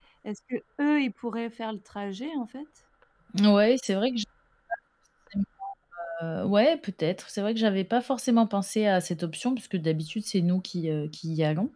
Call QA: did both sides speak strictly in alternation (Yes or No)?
Yes